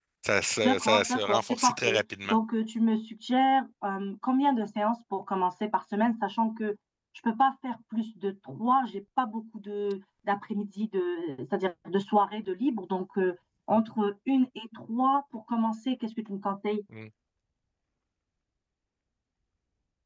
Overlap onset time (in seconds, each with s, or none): 0.6 s